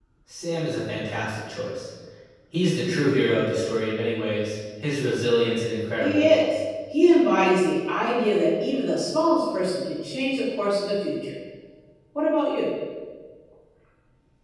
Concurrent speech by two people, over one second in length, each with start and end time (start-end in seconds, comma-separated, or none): none